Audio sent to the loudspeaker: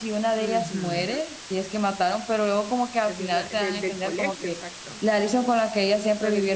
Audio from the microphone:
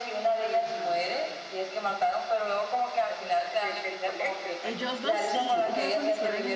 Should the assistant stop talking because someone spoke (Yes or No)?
Yes